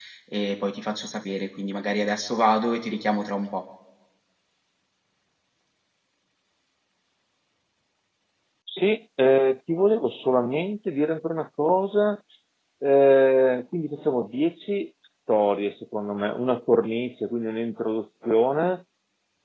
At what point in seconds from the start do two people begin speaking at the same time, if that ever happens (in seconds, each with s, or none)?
none